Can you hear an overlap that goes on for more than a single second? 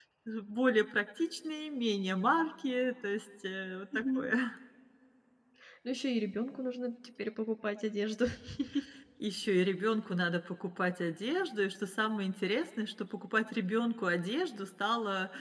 No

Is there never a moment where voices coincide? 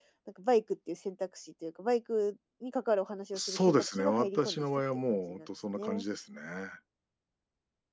No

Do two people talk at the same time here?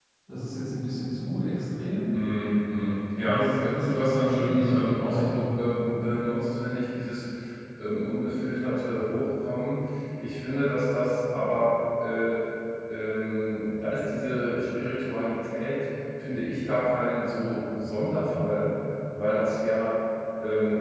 Yes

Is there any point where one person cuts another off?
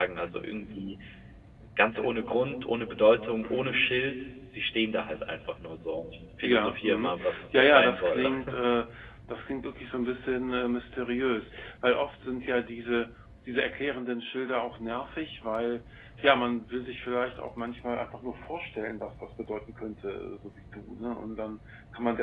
Yes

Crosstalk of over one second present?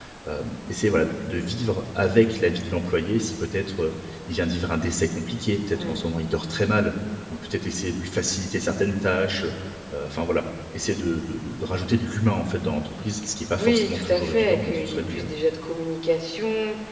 Yes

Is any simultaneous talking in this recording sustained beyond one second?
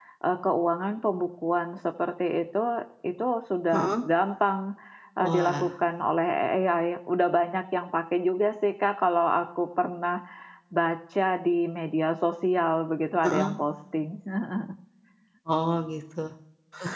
No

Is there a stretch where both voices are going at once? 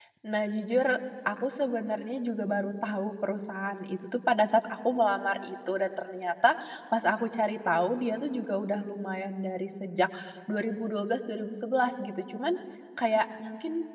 No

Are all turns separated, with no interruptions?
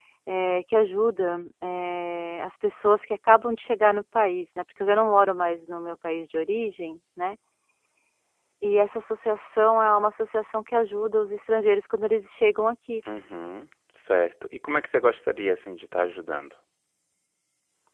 Yes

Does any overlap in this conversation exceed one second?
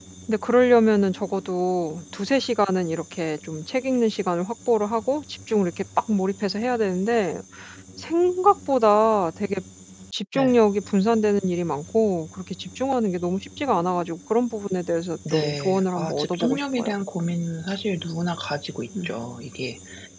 Yes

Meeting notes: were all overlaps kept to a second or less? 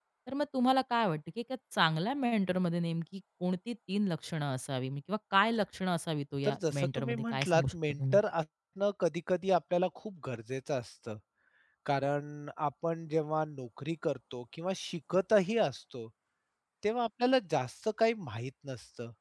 No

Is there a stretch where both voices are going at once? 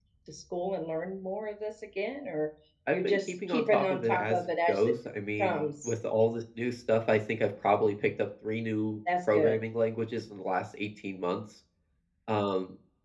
Yes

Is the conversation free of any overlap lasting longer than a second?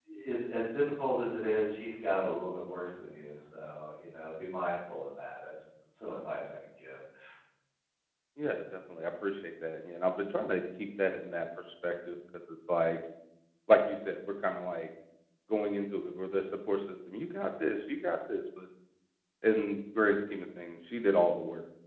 Yes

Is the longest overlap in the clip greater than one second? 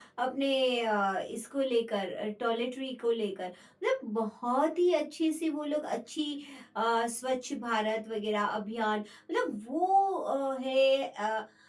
No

